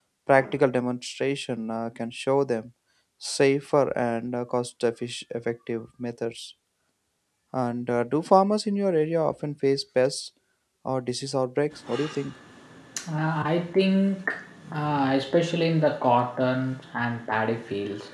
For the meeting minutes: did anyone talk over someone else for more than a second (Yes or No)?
No